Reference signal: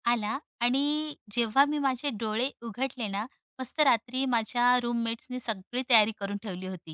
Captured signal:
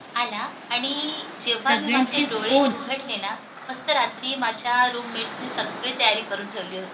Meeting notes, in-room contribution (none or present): present